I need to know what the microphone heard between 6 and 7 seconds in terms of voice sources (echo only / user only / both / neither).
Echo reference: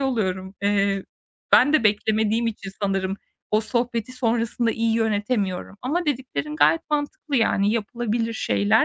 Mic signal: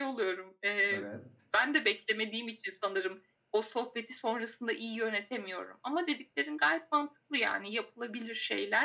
echo only